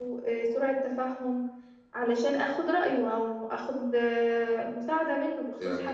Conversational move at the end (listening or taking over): taking over